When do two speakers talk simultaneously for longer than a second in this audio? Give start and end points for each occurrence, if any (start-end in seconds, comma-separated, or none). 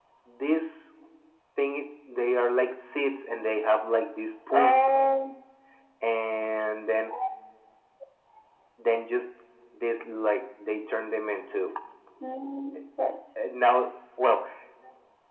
none